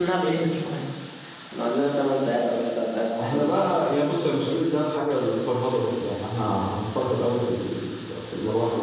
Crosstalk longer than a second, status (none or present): none